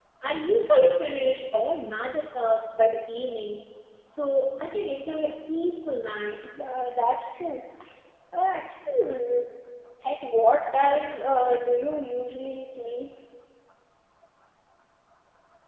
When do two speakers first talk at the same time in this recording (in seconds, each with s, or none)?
none